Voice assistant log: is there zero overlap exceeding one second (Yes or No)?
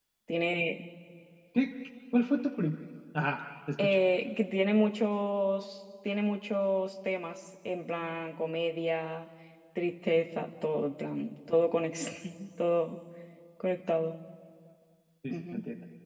Yes